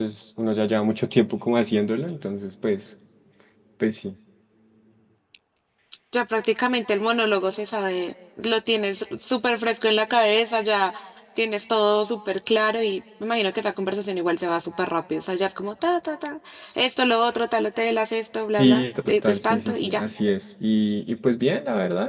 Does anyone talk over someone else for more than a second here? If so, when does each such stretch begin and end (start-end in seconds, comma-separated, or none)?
18.6-20.0